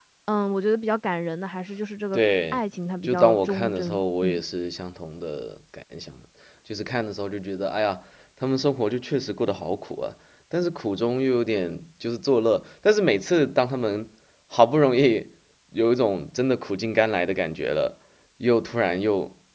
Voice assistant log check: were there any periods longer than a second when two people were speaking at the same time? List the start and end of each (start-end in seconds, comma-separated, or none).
3.0-4.4